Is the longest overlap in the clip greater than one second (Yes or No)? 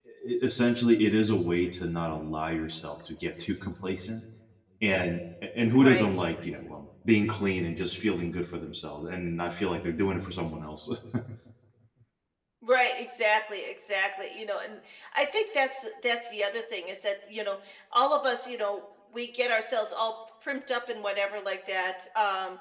No